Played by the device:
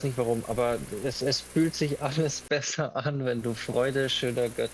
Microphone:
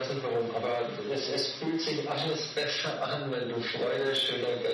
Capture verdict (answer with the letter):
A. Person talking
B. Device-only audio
B